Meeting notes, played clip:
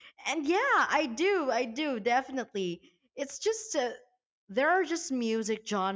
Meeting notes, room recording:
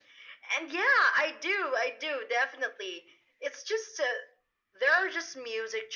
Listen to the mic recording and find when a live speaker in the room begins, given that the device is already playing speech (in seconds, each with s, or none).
none